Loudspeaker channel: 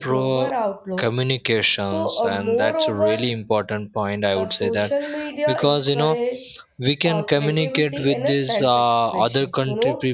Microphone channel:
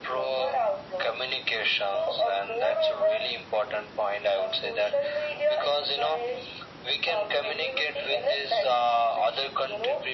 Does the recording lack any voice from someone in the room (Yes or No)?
Yes